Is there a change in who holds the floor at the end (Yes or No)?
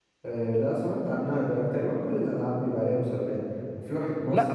No